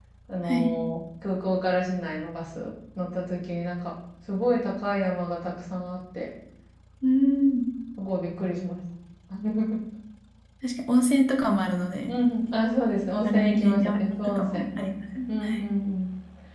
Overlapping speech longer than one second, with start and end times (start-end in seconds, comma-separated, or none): 13.2-14.7